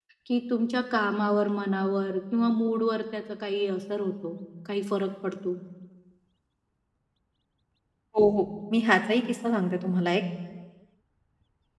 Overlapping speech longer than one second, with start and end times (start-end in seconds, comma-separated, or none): none